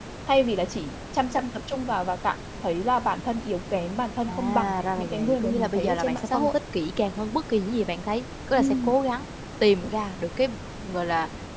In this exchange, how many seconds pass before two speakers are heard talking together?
4.3 s

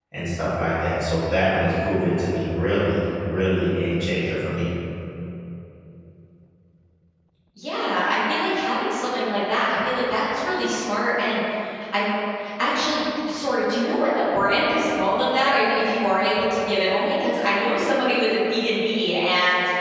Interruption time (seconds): none

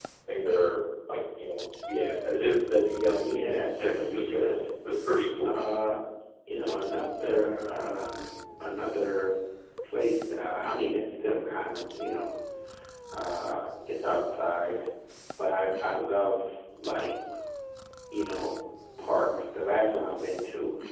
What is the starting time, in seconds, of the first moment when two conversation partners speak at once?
3.2 s

